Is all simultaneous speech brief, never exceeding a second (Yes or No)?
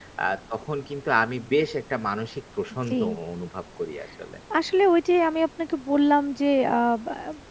Yes